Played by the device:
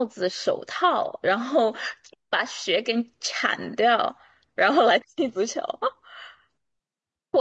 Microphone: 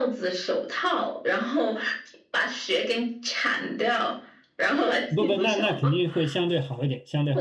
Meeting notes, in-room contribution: present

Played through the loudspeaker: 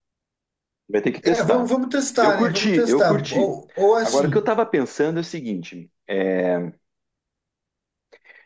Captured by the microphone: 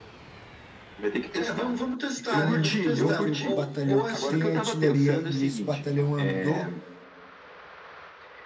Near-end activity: present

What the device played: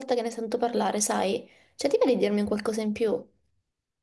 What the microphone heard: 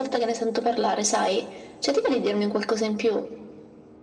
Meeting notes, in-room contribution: none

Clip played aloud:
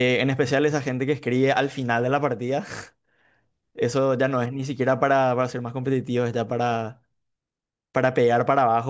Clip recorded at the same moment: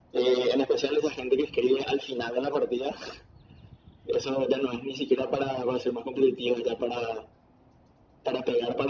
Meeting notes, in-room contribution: none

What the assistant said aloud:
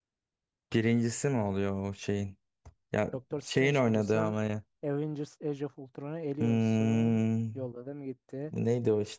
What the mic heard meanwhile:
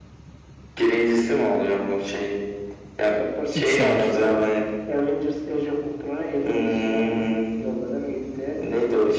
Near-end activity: present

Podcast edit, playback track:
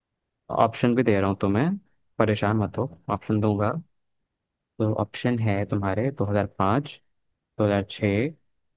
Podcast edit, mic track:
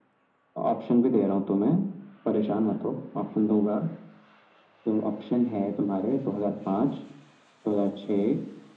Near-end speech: none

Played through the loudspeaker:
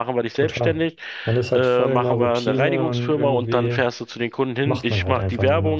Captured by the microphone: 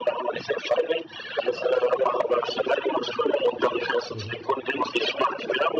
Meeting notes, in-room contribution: present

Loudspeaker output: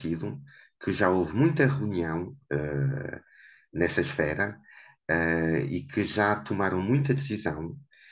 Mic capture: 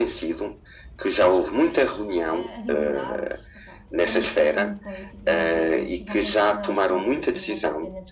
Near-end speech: present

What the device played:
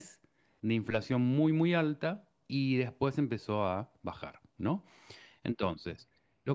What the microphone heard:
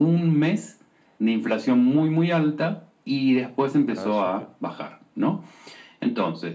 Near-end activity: present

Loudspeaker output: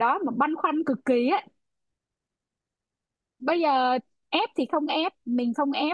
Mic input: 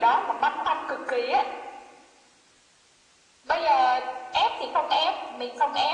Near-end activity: none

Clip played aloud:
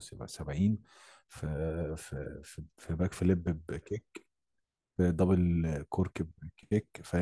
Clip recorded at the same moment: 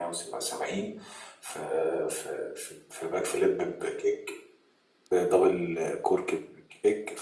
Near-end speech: none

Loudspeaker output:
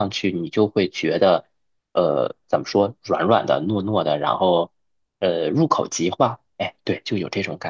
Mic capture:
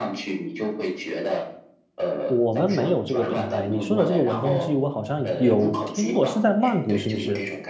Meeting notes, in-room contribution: present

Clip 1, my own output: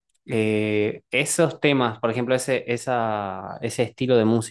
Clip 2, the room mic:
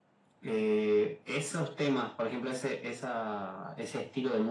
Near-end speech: none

